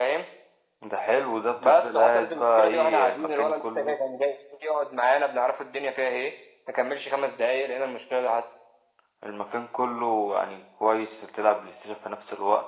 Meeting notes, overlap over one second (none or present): present